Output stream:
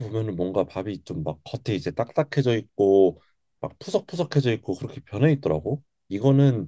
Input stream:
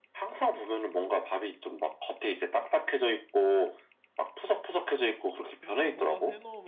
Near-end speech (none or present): present